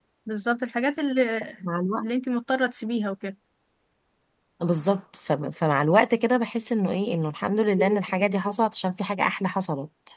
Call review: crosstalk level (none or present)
none